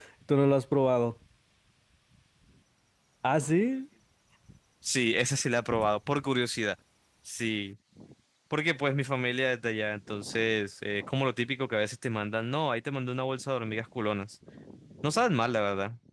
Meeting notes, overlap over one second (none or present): none